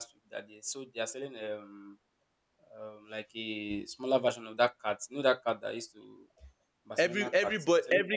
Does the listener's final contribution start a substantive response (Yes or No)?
Yes